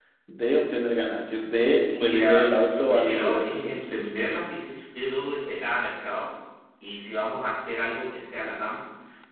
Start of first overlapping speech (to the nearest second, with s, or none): 2 s